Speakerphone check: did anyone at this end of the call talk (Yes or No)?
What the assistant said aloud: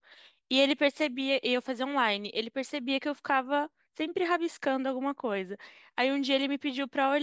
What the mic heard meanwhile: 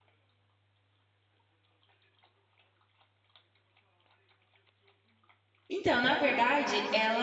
Yes